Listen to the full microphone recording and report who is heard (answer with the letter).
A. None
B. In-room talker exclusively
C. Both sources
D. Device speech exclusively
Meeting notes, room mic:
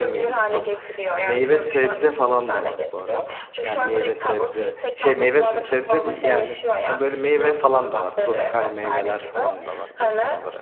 C